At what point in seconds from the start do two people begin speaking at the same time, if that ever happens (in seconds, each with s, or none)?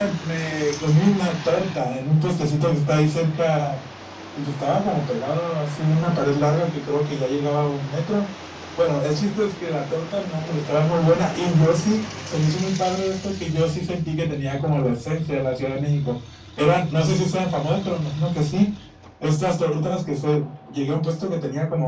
none